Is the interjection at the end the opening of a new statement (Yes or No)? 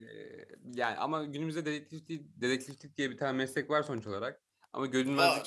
No